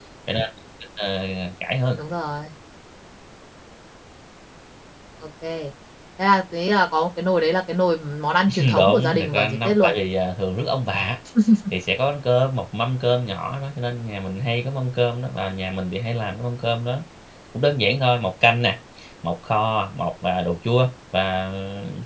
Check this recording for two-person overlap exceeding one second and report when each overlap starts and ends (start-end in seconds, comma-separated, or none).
8.6-9.9